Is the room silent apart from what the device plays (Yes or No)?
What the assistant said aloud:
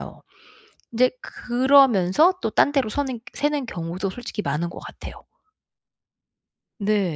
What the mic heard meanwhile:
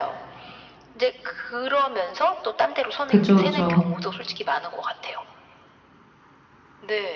No